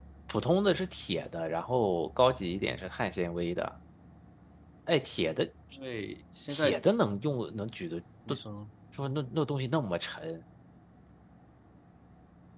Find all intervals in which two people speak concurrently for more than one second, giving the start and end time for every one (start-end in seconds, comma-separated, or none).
none